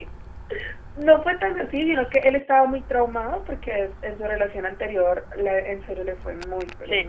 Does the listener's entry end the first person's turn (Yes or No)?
Yes